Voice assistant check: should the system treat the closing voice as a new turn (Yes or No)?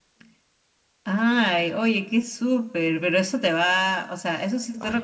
No